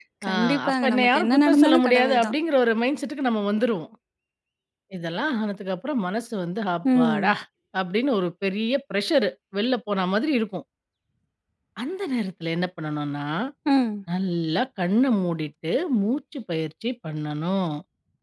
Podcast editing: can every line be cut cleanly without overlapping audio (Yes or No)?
No